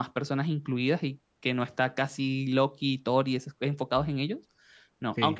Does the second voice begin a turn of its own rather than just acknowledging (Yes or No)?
No